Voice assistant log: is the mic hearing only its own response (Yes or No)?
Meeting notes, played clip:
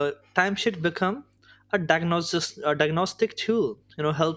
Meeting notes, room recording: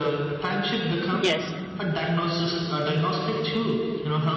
No